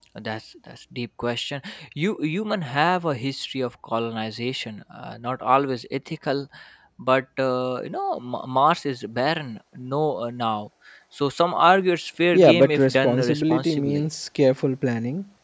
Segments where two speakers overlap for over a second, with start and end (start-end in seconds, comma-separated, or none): 12.3-14.0